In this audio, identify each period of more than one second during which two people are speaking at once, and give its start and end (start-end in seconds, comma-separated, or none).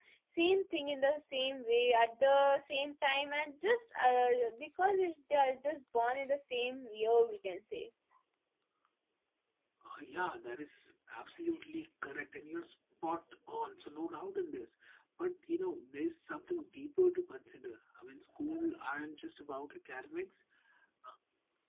none